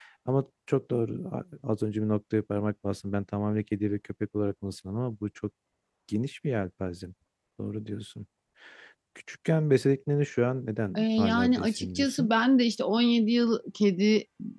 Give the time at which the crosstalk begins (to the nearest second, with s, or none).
11 s